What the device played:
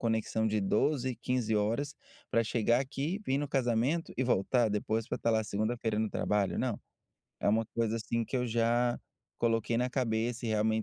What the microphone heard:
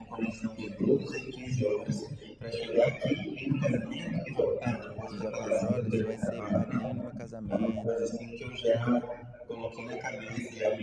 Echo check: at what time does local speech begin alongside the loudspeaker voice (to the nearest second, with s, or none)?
5 s